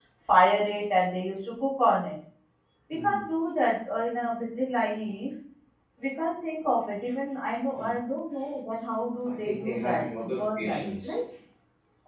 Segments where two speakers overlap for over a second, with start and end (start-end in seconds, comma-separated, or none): 9.2-11.2